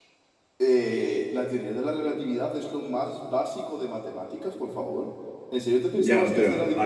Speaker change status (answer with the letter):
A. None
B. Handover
B